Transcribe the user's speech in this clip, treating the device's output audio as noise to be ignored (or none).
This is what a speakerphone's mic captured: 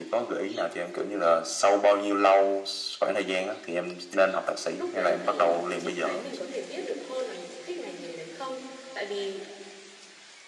Lúc đấy thì chị thấy mình có thể biết được hơn là mình có thích ngành nghề đấy không. Tại vì